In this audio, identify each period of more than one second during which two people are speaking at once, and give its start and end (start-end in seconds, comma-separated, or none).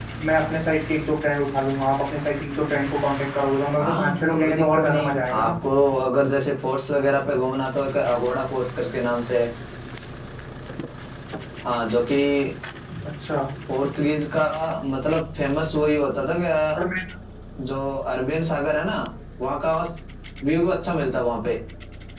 3.8-5.5